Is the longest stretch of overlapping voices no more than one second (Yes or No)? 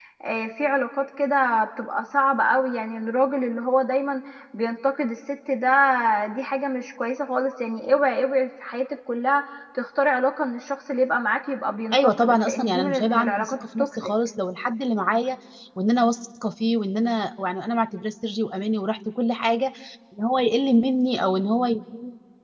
No